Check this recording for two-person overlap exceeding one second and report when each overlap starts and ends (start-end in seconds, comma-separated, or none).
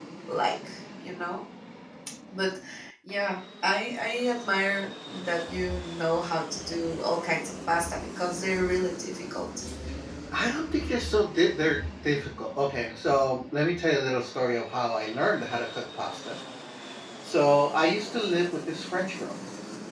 none